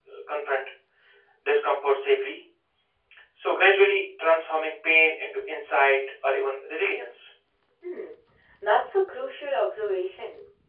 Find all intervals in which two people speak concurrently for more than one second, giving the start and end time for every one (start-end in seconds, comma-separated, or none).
none